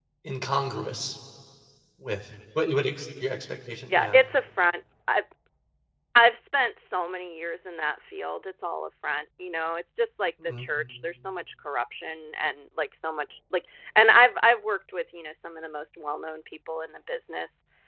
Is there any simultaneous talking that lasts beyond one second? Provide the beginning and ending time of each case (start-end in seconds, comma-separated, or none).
none